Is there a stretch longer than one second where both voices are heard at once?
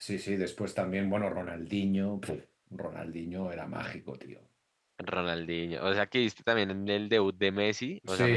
No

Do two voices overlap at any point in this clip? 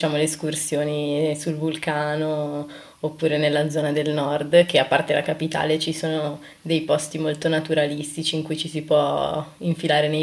No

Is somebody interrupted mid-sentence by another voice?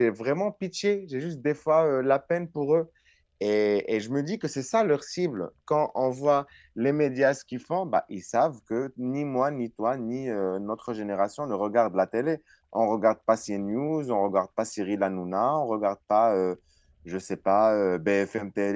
No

